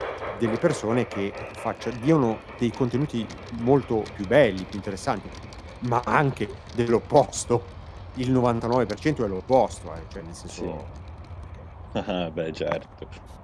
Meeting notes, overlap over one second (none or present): none